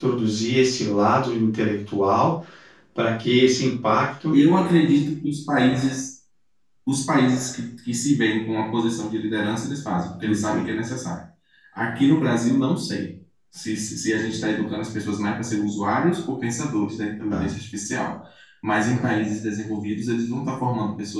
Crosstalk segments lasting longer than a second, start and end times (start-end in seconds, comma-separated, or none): none